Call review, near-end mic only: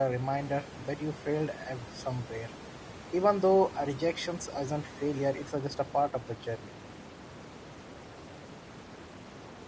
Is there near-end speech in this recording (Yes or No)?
Yes